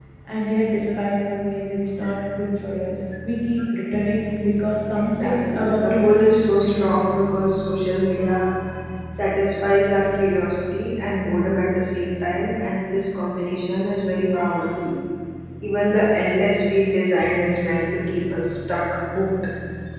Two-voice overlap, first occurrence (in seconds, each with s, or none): 4.9 s